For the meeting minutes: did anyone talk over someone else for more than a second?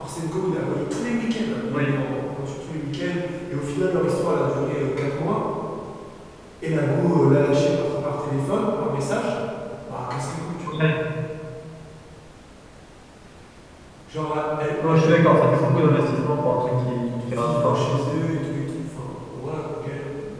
Yes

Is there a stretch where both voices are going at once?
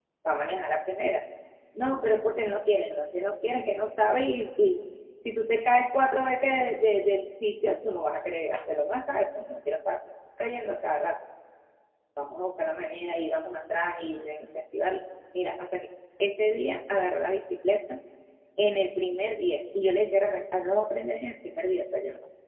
No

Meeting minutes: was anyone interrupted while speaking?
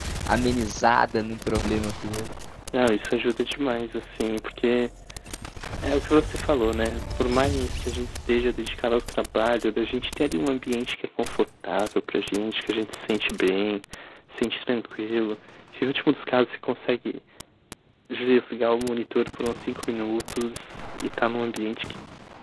No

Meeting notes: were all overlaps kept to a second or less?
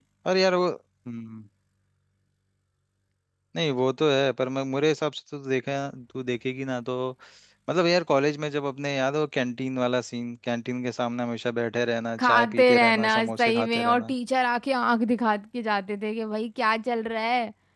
No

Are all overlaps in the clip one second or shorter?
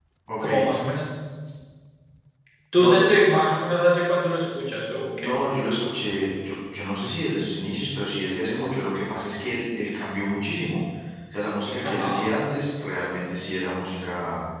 Yes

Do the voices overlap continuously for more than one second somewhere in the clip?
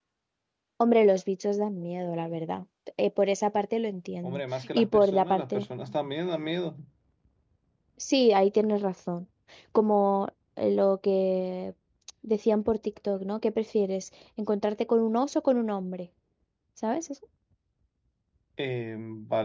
Yes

